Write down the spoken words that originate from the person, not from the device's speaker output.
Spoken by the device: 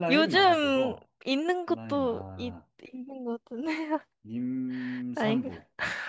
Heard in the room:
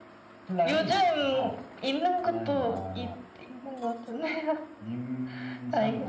none

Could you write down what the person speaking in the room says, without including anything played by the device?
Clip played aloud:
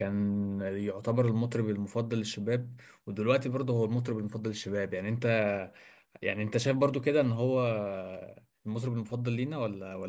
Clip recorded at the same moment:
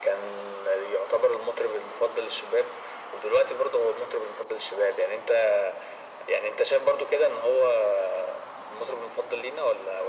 none

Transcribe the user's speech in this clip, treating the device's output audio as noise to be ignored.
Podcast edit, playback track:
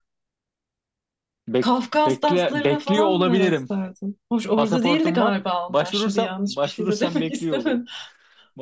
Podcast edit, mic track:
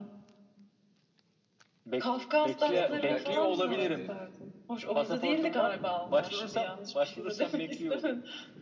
şey yapalım gel Kazakistan'a gidelim.

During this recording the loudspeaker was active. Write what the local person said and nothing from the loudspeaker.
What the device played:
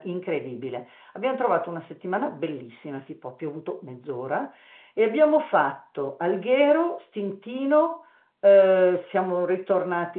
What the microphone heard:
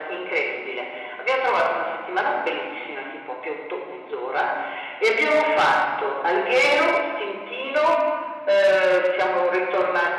none

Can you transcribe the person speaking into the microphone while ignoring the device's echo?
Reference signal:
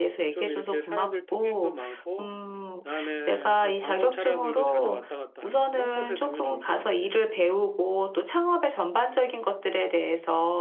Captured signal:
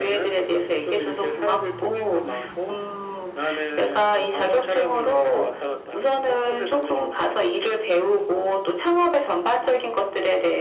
none

